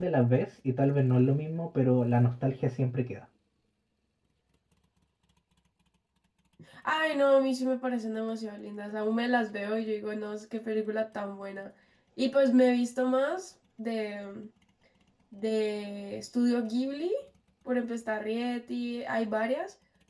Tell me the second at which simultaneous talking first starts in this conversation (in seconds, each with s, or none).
none